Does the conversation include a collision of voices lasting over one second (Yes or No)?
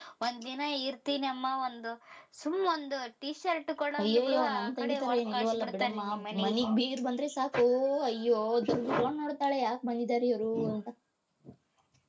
Yes